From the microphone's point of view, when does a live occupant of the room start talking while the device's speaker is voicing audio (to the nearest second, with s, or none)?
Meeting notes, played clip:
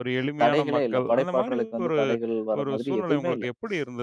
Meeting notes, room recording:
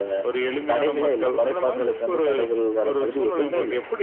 none